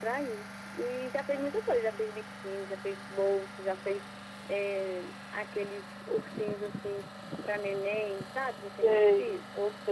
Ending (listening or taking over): taking over